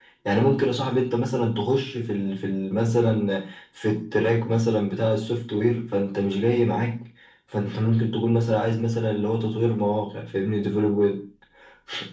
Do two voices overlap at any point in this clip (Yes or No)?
No